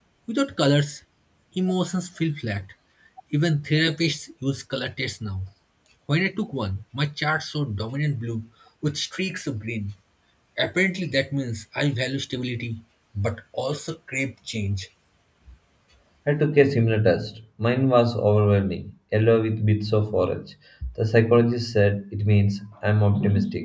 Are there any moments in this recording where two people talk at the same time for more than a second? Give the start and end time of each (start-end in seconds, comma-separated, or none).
none